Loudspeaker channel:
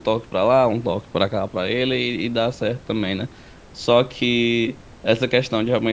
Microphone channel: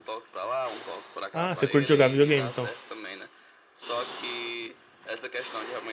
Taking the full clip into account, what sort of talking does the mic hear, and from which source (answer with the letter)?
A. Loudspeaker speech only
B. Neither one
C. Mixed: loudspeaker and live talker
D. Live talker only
C